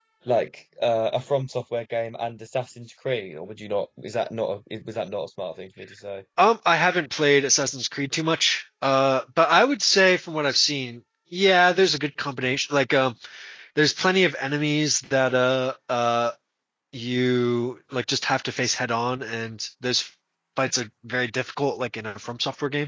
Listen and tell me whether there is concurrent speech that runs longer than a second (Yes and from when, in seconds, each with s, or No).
No